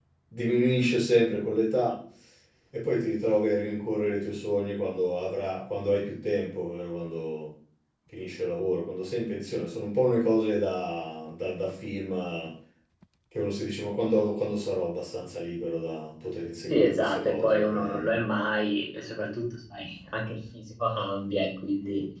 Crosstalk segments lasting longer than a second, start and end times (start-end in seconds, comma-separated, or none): 16.7-18.2